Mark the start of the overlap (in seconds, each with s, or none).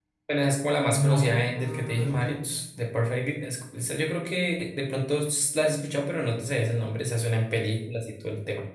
0.9 s